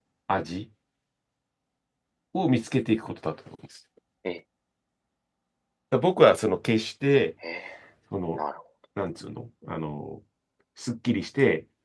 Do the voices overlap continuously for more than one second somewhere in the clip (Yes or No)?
No